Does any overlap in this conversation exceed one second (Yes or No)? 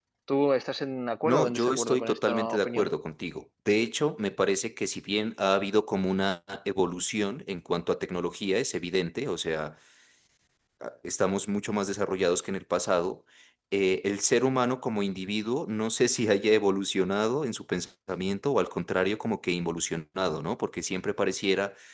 Yes